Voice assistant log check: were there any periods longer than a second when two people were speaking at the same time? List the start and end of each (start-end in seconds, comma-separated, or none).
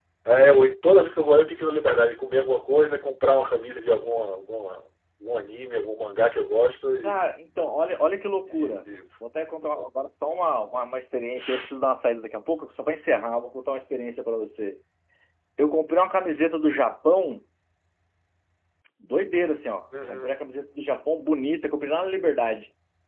none